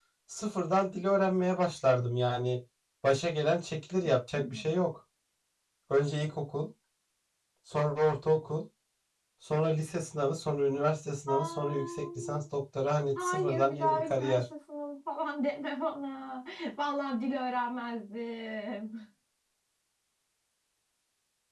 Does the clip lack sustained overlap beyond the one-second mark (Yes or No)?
No